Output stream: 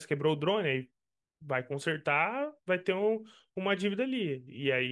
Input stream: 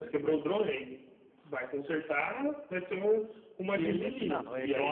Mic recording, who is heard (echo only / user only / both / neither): both